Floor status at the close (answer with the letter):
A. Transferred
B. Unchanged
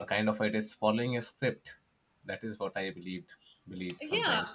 A